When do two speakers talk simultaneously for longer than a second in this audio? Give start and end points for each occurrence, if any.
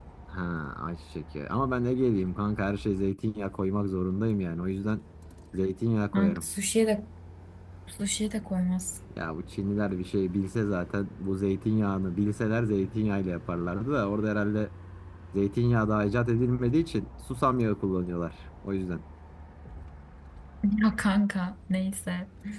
none

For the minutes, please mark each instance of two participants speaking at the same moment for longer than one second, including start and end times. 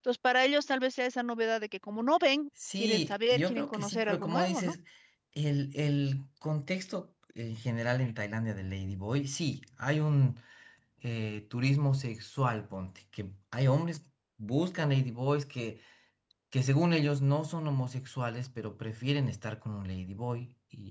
2.8-4.7

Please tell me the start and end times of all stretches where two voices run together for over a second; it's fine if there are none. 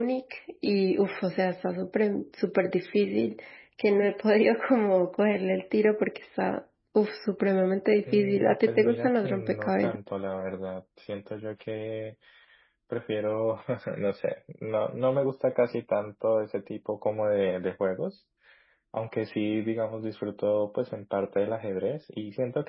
8.1-9.9

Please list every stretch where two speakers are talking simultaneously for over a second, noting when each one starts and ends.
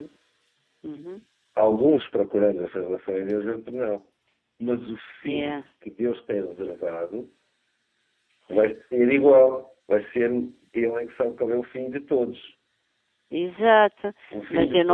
none

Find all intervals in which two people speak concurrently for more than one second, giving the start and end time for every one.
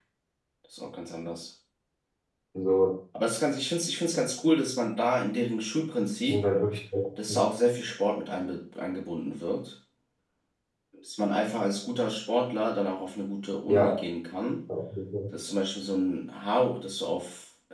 none

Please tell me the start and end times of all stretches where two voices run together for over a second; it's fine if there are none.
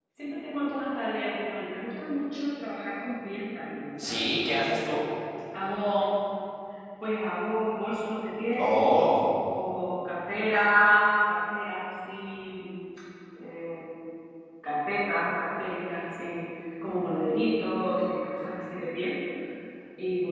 none

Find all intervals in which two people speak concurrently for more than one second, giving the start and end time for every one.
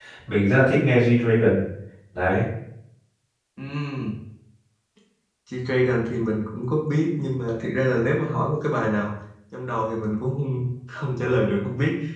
none

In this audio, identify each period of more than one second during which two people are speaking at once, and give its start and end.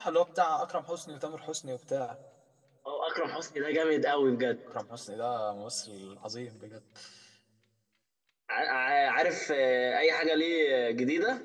none

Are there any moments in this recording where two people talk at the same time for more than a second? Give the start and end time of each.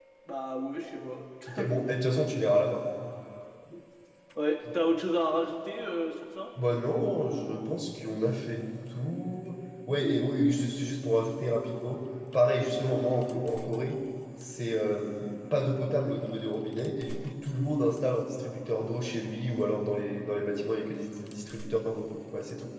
none

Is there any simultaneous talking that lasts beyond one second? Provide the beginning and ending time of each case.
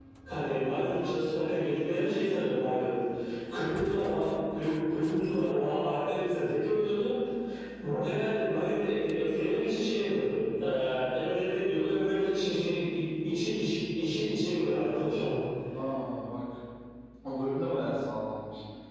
none

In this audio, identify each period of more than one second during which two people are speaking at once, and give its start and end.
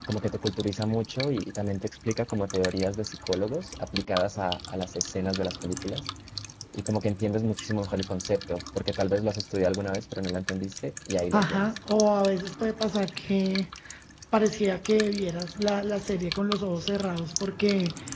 none

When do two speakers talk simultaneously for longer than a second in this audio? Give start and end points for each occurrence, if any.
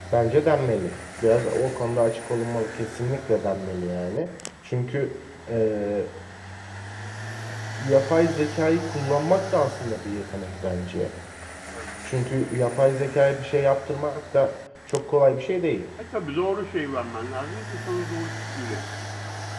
none

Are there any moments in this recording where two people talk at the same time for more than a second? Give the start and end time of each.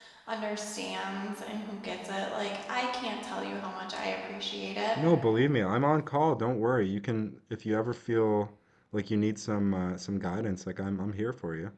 none

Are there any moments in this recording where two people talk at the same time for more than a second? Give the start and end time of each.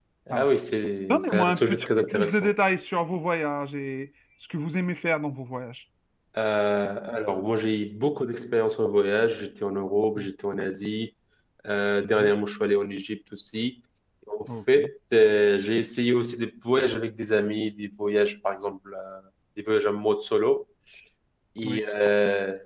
1.1-2.5

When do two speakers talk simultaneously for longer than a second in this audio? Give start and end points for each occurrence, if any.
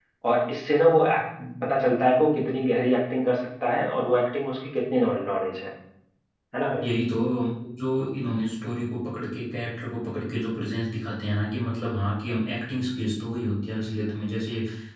none

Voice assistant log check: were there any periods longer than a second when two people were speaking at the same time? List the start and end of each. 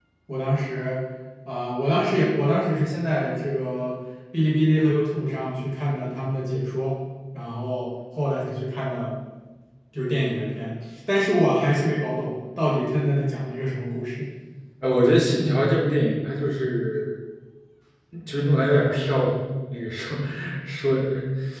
none

